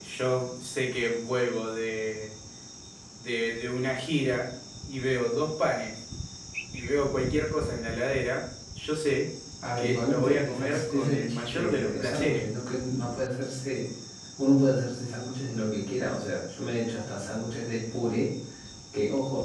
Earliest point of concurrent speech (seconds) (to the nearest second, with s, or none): 10 s